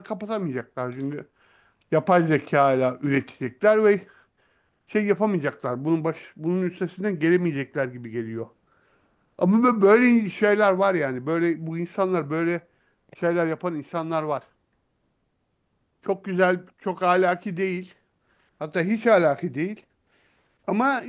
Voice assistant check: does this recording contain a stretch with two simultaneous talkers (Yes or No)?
No